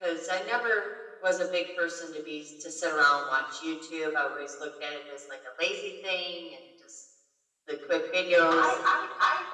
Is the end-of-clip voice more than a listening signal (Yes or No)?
Yes